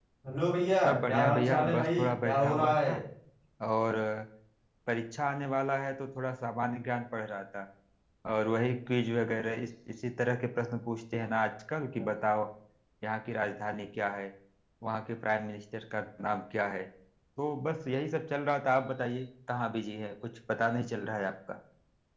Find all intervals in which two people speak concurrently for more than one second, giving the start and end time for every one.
0.8-2.9

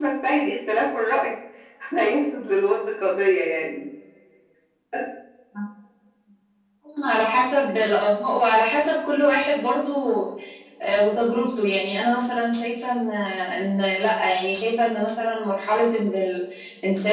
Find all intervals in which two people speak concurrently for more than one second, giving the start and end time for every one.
none

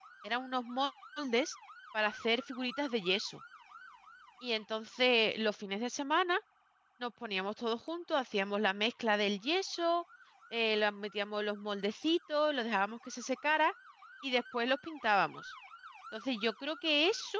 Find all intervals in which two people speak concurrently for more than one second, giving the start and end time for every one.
none

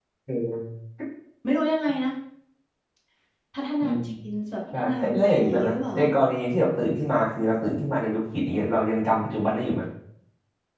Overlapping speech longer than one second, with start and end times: 4.7-6.0

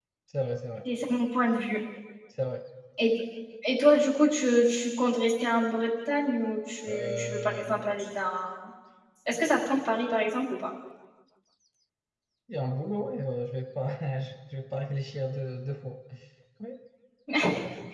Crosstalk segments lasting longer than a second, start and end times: 6.9-8.2

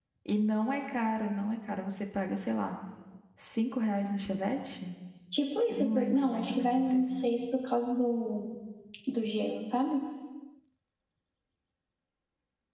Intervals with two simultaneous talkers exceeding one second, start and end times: 5.7-7.2

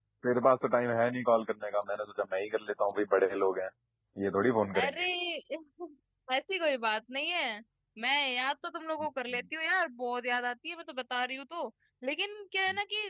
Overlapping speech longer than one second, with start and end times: none

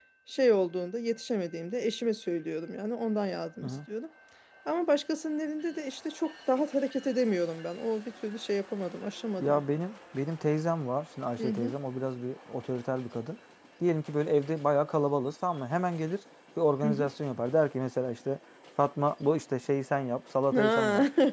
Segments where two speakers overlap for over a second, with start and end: none

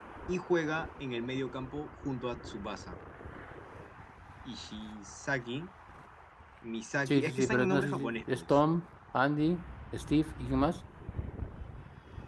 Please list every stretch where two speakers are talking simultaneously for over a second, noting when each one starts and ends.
7.1-8.4

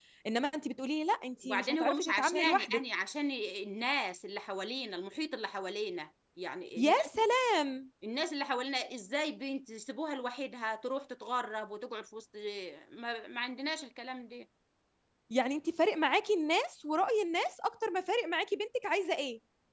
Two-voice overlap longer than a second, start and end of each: 1.4-2.9

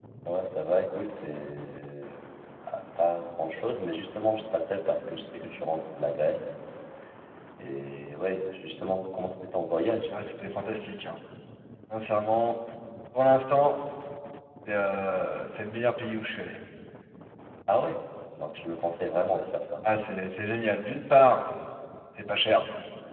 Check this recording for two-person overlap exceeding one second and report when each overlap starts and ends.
none

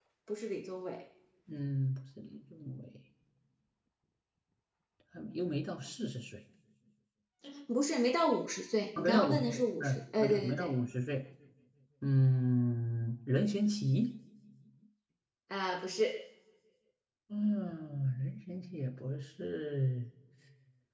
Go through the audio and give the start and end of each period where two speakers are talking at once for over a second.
9.0-10.7

